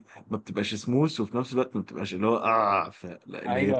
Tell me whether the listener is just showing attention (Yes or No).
No